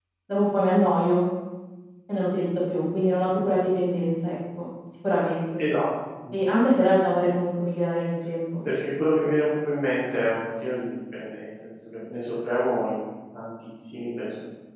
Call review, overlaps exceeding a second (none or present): none